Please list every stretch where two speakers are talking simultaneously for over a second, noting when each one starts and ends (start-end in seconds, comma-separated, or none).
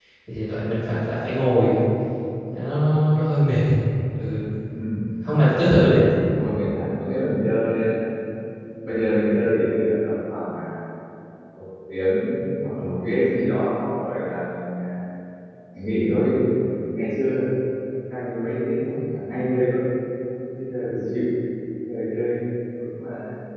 none